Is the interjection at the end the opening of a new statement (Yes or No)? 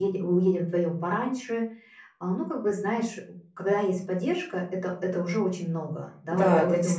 Yes